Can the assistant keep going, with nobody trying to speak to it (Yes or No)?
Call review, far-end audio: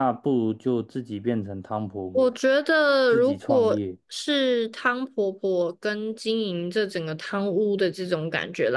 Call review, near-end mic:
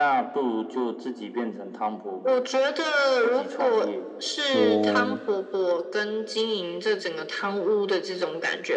No